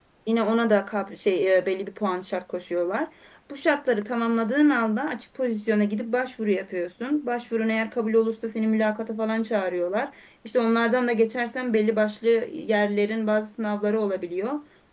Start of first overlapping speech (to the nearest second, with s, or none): none